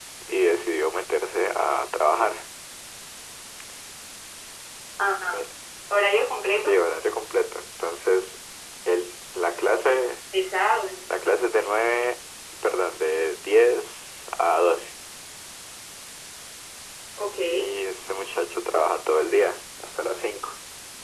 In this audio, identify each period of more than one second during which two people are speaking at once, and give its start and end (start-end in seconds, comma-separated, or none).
none